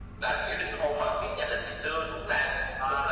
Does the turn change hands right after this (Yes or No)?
Yes